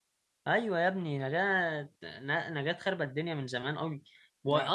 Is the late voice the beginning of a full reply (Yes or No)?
No